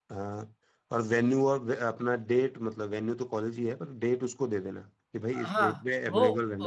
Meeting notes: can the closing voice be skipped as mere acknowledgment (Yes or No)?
No